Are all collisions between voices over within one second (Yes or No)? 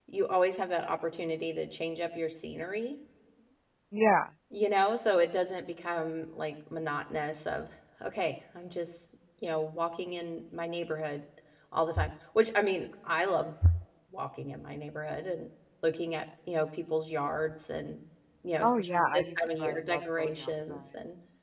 No